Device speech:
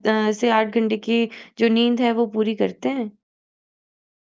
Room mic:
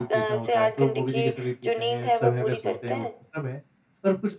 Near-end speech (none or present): present